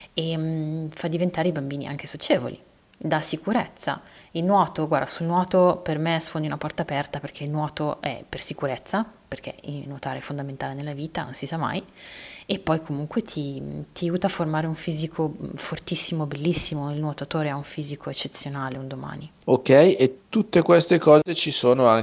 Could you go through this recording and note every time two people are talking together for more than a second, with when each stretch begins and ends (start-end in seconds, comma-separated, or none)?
none